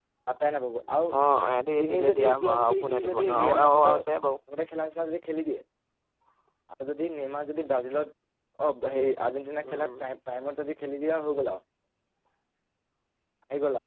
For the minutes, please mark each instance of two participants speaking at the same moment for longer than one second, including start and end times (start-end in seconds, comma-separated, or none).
1.8-4.0